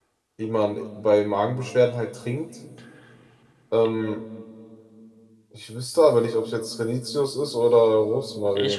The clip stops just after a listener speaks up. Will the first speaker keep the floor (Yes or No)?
No